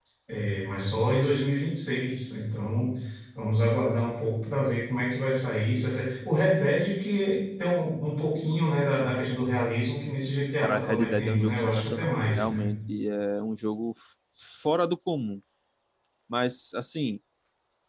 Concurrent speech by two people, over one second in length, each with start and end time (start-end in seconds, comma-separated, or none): 10.6-12.7